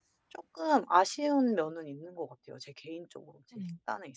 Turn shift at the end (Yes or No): Yes